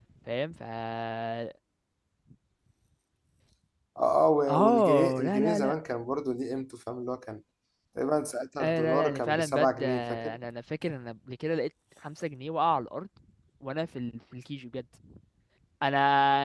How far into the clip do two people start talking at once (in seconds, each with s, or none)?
4.5 s